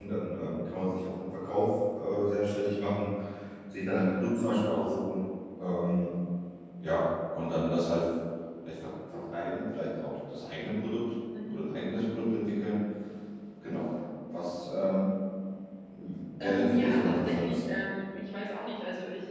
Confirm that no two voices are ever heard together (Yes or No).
No